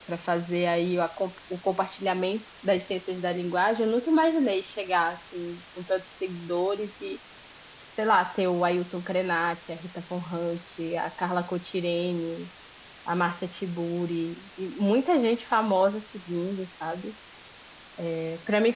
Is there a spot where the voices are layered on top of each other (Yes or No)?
No